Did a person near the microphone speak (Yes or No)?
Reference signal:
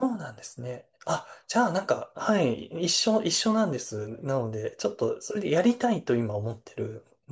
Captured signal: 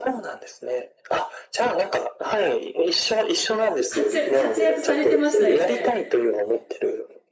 Yes